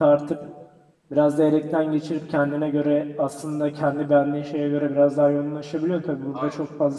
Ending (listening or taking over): listening